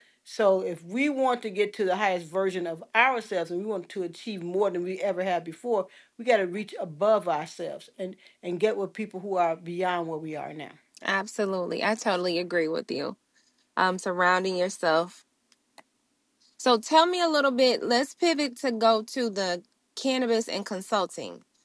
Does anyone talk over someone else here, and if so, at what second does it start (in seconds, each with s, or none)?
none